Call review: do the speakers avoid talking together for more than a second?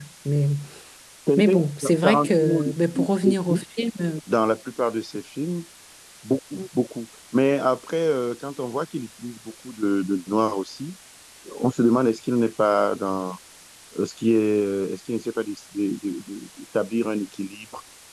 No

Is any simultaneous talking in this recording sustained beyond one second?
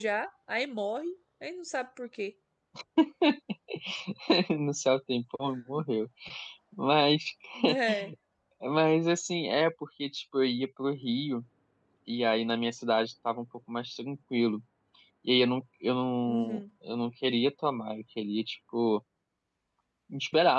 No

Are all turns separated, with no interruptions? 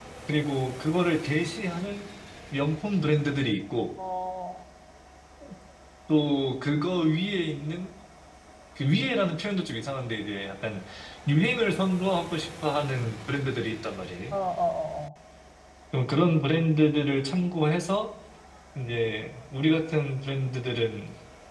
Yes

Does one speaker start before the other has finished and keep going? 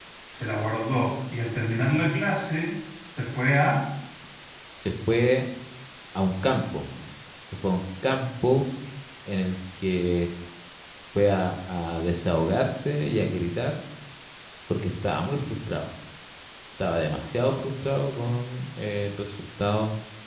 No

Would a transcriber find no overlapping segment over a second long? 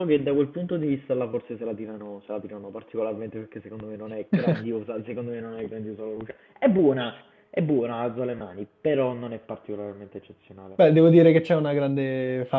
Yes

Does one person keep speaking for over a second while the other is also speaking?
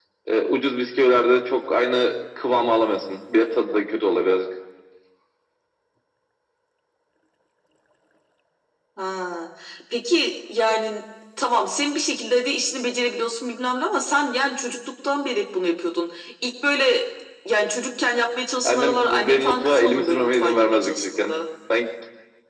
Yes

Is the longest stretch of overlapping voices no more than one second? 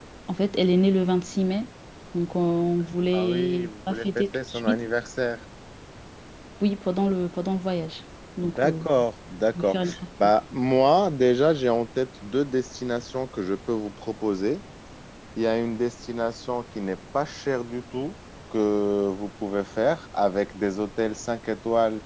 No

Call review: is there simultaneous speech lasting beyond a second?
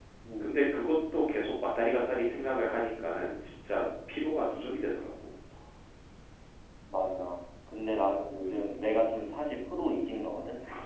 No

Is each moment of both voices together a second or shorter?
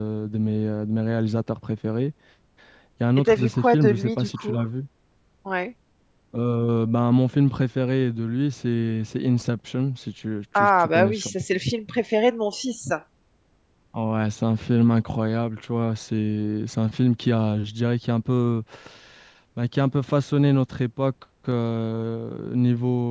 No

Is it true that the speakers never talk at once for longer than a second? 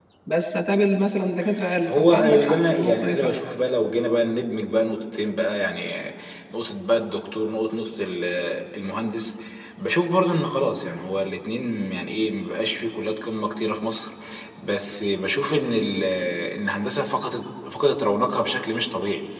No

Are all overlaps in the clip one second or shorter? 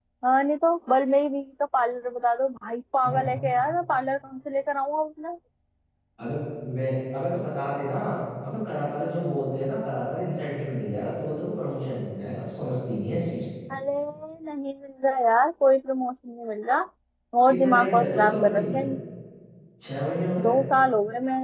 No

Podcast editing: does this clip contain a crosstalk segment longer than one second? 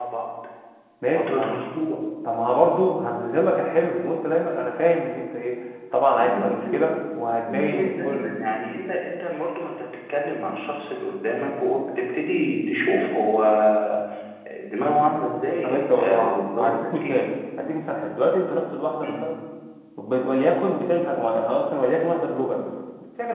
Yes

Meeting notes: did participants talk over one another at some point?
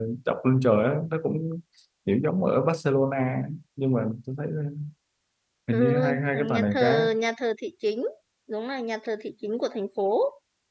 Yes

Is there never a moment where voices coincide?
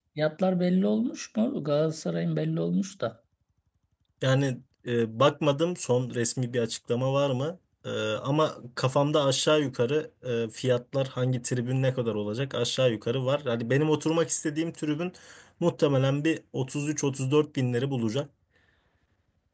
Yes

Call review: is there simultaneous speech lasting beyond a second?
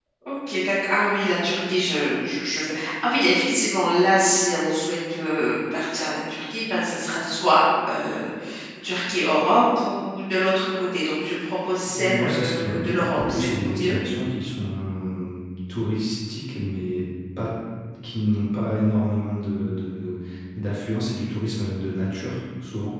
Yes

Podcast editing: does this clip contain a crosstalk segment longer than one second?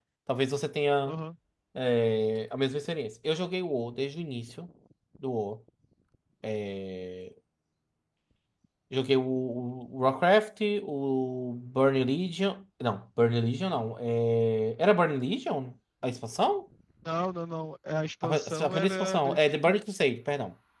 Yes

